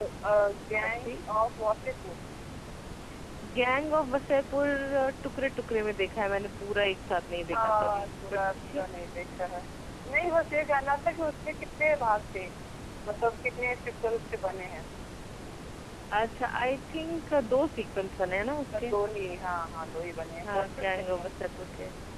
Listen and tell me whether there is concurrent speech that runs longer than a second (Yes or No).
Yes